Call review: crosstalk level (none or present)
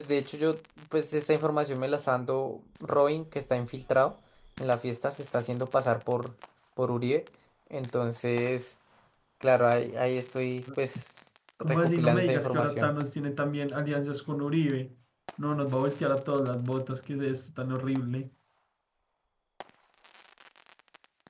present